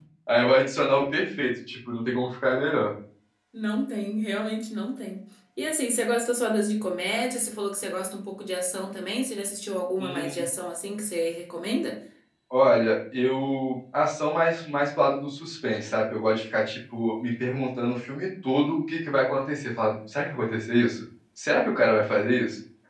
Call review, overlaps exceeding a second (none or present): none